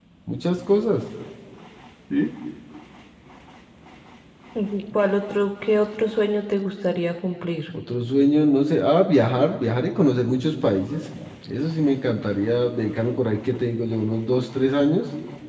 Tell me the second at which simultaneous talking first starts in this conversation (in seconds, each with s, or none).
none